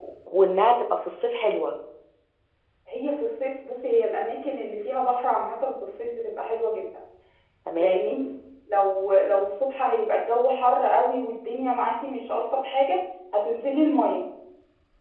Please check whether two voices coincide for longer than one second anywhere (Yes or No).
No